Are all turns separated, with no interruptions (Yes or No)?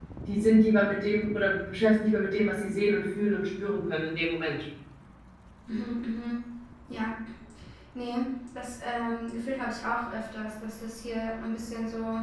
Yes